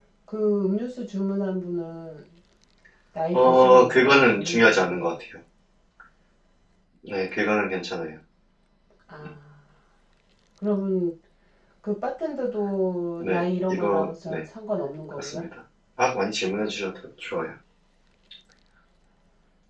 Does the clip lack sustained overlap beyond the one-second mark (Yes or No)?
No